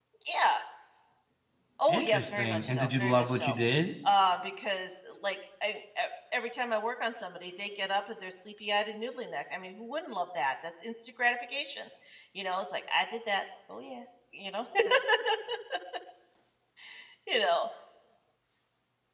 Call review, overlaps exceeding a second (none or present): present